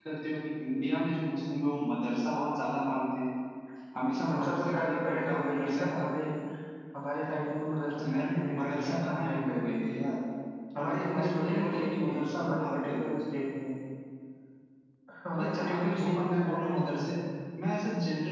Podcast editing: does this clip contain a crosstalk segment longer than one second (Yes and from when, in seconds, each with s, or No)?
Yes, from 4.3 s